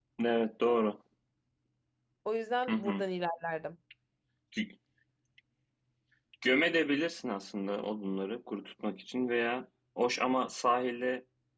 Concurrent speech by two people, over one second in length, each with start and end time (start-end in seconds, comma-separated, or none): none